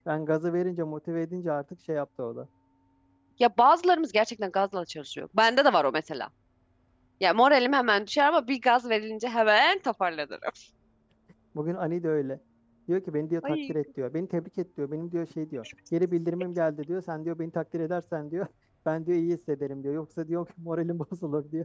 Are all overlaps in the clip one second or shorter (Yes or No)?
Yes